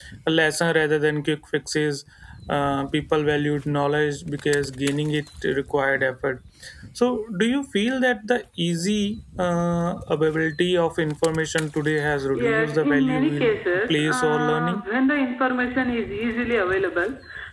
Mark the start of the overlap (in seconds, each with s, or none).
12.3 s